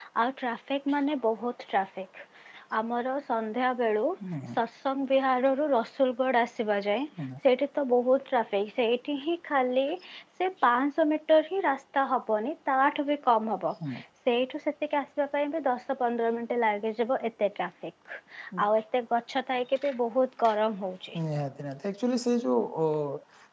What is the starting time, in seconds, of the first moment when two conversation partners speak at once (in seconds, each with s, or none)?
none